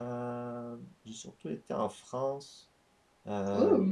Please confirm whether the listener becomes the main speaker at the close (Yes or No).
No